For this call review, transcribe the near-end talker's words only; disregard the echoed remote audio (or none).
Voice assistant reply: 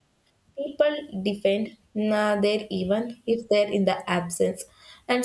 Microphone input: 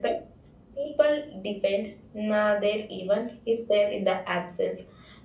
none